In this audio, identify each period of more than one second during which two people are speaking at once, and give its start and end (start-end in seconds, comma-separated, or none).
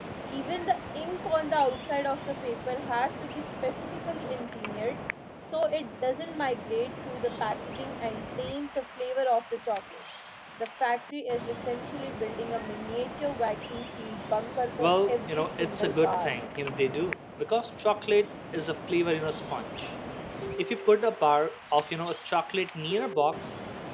14.8-16.3